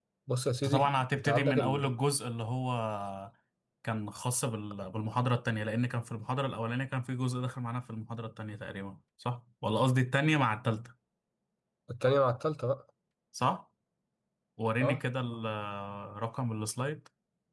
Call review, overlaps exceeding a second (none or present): present